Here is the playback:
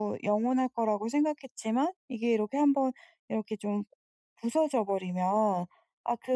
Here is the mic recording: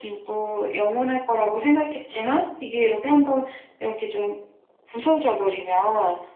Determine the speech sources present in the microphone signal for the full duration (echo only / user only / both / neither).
echo only